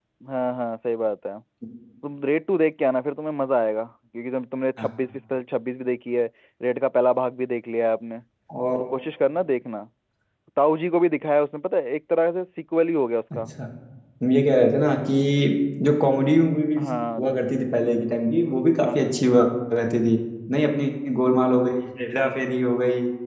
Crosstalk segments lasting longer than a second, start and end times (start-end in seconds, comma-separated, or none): none